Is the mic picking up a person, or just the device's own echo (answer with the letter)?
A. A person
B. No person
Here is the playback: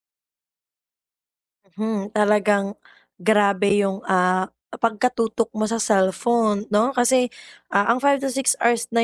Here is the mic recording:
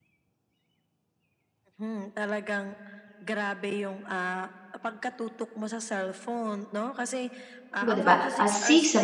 A